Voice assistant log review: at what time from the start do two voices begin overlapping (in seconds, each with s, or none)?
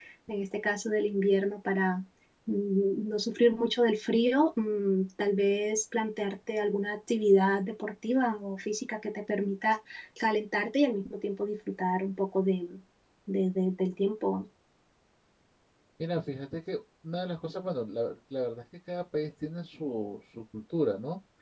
none